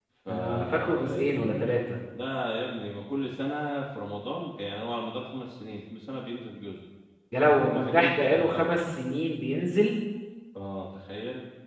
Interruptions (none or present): present